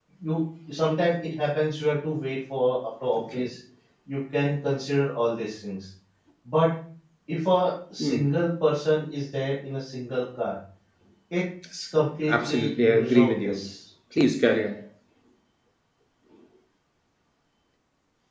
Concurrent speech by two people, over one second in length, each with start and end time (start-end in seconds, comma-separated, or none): 12.2-13.7